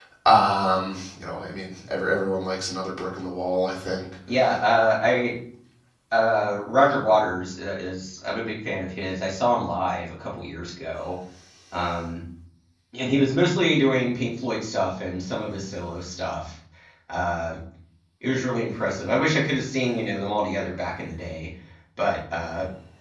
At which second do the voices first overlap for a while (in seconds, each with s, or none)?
none